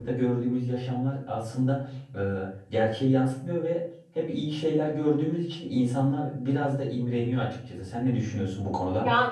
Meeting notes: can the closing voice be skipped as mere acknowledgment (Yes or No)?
No